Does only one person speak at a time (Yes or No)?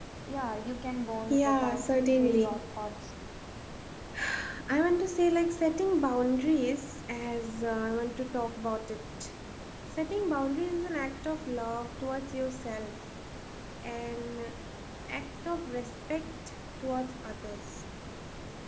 No